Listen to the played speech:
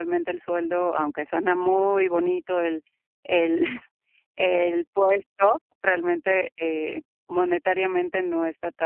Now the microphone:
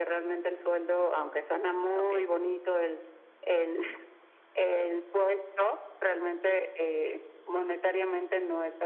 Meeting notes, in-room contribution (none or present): present